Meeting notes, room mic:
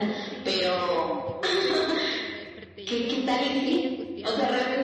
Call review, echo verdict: present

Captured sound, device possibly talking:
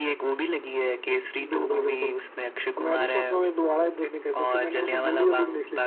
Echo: present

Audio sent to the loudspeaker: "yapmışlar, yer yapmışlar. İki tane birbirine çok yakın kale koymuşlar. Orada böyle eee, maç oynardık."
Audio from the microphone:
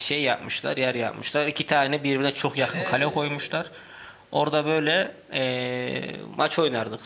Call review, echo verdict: present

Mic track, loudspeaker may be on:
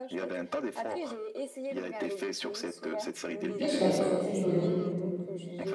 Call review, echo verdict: present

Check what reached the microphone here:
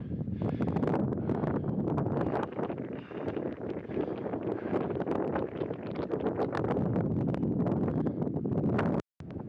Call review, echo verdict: none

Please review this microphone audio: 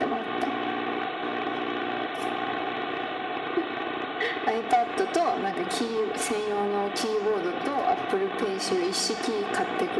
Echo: present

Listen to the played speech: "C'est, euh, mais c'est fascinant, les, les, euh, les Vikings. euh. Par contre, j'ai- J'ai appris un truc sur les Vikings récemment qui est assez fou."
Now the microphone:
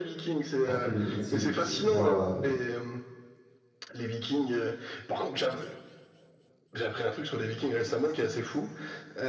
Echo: present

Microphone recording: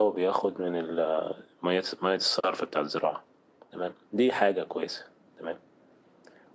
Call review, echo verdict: none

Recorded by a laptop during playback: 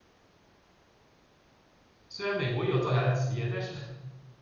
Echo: none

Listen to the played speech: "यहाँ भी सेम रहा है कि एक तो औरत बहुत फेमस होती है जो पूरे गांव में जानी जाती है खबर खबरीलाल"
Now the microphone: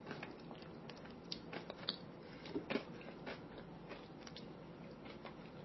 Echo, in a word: none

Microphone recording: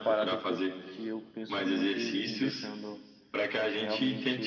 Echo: present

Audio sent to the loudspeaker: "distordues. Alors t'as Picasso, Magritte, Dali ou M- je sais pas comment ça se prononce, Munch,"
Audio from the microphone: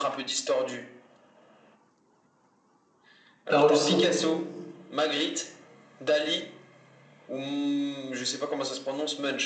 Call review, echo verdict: present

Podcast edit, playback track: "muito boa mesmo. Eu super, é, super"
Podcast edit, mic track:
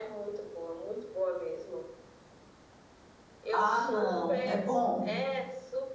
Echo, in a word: present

